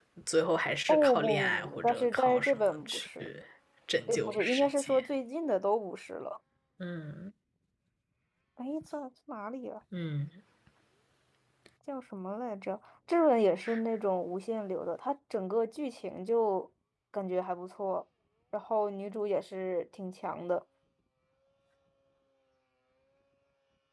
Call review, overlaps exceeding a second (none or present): present